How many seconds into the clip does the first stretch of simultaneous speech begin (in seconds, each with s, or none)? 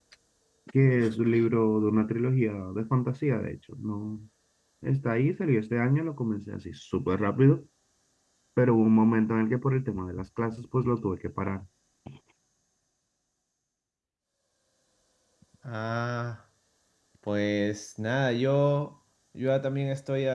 none